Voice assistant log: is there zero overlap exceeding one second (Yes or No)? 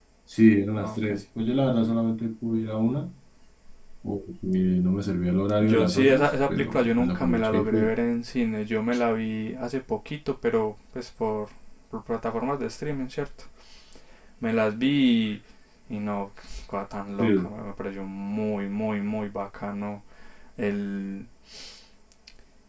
No